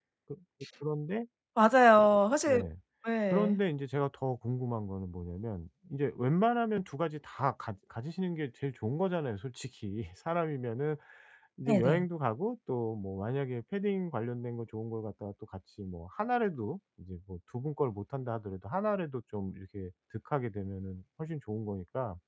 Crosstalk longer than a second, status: none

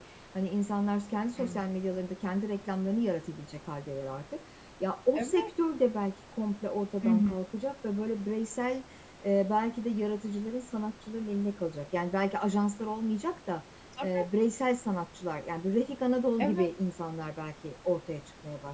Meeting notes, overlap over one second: none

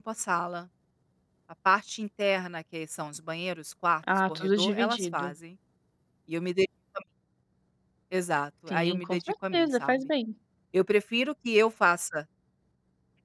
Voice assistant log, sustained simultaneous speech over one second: present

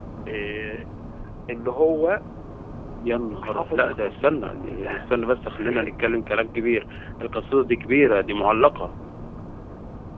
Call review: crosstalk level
present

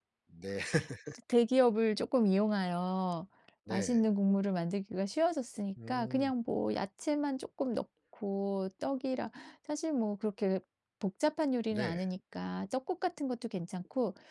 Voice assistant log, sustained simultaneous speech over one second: none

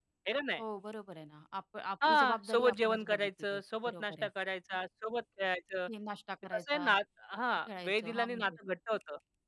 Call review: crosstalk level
present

